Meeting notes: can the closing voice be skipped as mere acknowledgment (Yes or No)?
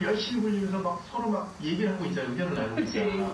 No